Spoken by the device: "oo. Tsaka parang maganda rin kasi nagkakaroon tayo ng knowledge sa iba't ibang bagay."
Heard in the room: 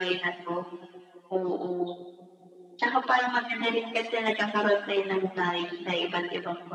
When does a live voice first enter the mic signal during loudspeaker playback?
none

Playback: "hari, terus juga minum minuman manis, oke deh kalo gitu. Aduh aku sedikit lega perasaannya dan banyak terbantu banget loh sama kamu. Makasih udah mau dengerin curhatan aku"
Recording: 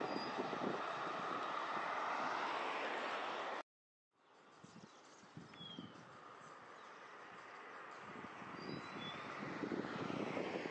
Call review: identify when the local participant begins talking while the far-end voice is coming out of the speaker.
none

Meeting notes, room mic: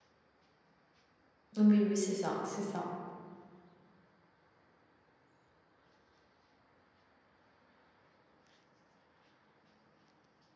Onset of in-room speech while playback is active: 2 s

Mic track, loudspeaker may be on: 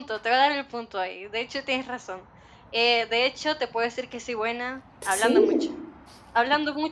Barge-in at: 5 s

